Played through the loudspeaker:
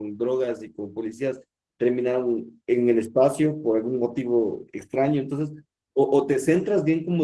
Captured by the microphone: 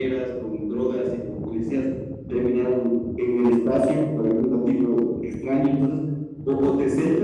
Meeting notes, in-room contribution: none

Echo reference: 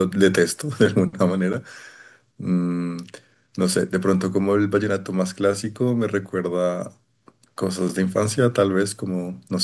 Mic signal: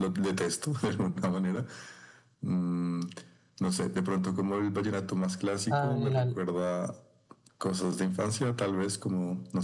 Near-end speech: present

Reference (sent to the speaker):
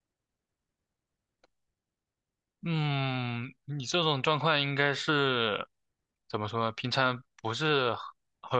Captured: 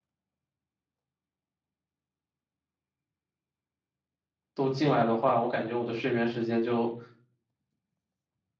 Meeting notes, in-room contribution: present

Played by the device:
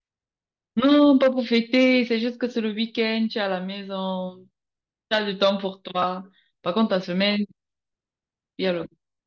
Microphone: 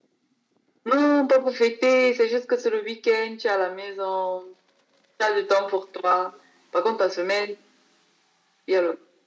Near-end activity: none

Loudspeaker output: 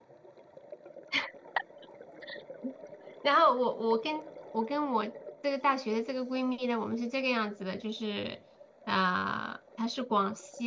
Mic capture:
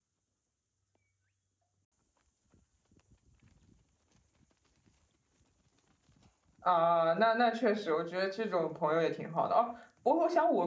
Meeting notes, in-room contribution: present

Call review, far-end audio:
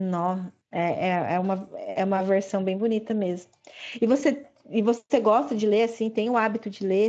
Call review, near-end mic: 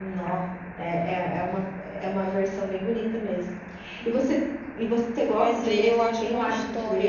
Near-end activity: present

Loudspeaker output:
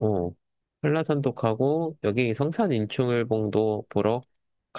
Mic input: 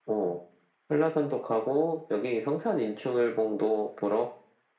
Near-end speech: none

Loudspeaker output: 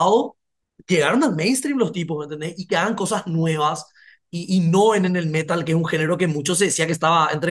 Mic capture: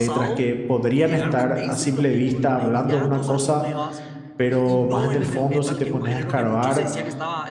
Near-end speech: present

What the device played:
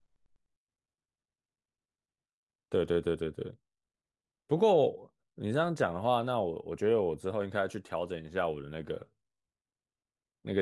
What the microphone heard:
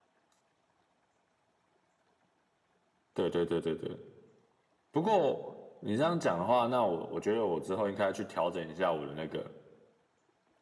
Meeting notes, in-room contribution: none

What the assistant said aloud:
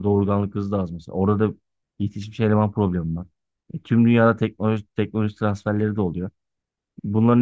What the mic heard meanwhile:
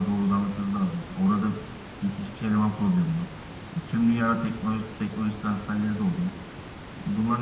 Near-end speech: none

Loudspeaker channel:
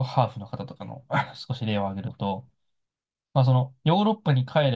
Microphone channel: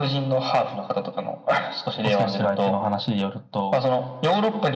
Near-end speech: present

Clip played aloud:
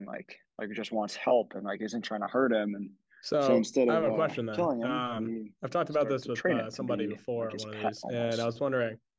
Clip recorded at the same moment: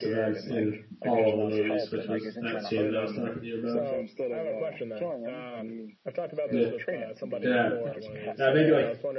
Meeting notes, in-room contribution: present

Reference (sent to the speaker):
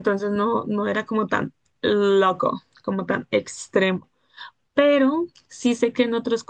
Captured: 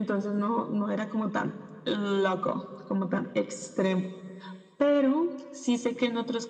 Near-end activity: none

